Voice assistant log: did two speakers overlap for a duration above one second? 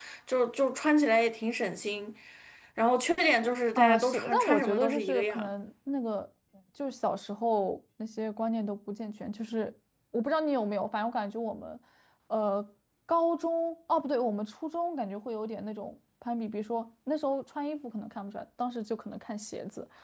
Yes, from 3.8 s

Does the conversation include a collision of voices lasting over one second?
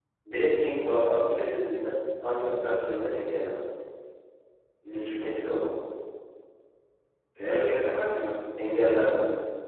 No

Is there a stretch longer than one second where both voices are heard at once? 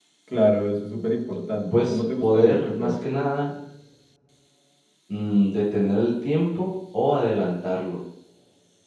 Yes, from 1.7 s

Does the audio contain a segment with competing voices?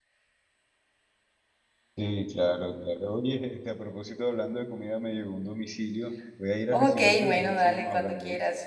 Yes, from 6.7 s

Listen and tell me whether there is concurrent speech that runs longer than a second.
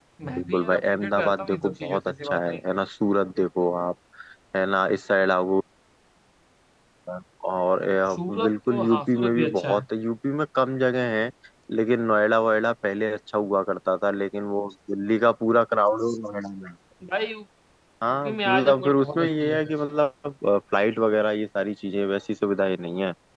Yes, from 0.5 s

